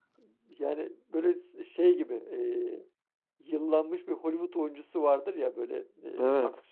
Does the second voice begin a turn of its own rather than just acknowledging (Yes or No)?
No